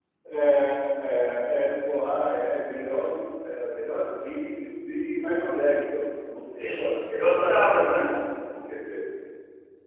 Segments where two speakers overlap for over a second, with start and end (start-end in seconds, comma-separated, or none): 6.6-8.1